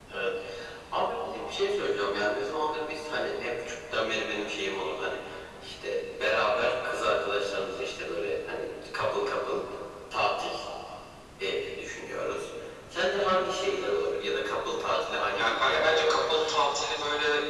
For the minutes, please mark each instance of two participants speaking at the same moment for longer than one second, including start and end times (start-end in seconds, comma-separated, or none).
15.3-16.5